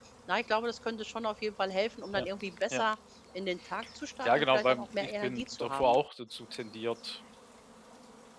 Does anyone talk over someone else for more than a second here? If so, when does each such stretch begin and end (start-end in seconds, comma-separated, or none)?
4.2-6.0